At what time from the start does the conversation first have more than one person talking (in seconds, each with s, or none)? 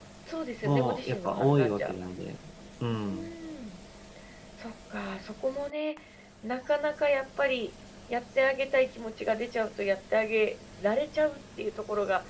0.6 s